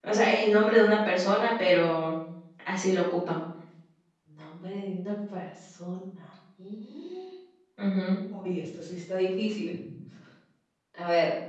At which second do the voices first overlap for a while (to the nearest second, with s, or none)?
none